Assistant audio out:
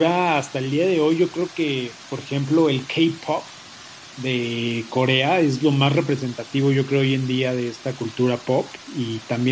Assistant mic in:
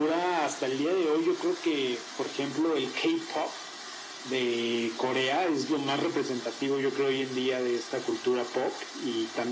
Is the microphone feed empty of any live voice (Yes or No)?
Yes